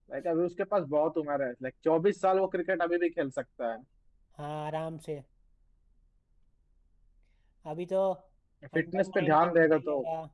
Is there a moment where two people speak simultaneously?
Yes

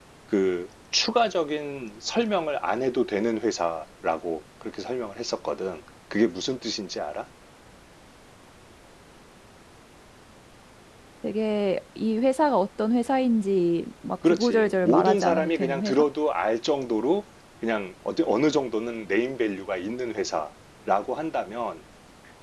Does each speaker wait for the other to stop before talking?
No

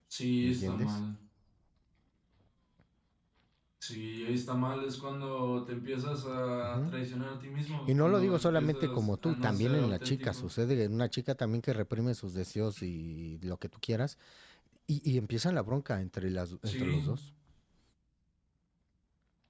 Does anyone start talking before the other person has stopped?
Yes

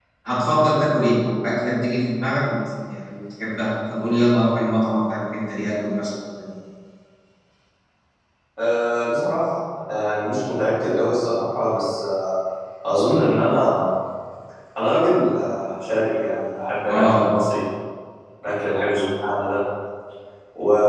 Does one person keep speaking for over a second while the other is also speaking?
No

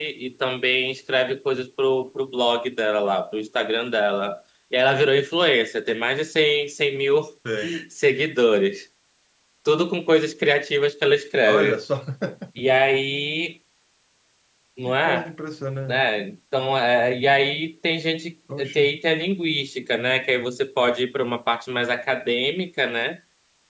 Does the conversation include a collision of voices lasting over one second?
No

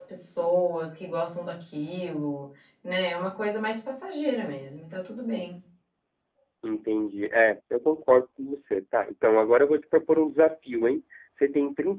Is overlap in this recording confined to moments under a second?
Yes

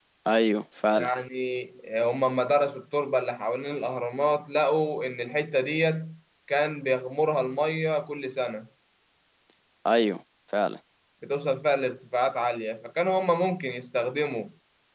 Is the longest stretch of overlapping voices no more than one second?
Yes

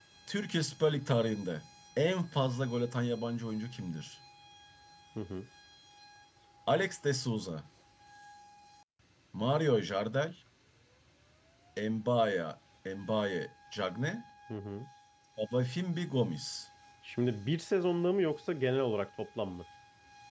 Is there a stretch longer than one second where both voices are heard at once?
No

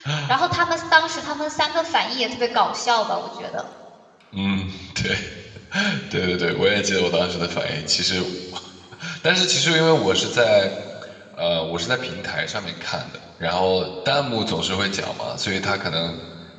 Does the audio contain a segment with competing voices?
No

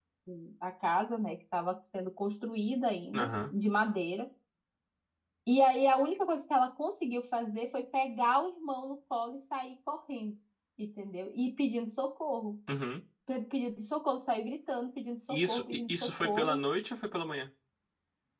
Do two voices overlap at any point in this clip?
Yes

